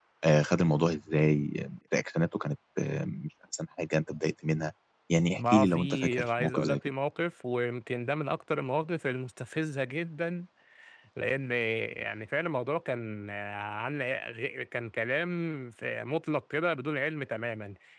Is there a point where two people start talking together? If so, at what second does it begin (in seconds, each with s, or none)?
5.3 s